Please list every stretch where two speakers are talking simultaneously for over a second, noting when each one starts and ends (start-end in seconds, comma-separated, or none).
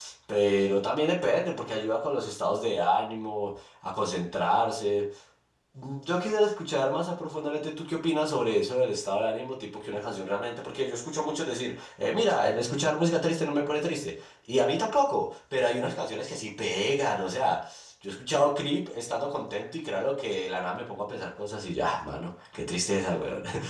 none